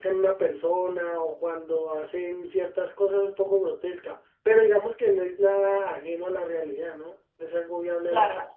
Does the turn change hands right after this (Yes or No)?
Yes